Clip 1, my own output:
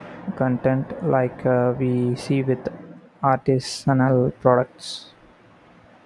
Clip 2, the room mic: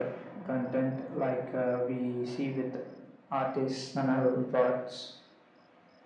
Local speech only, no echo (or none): none